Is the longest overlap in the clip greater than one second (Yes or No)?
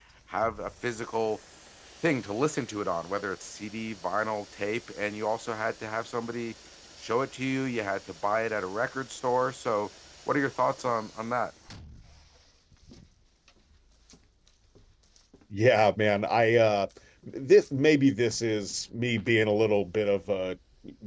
No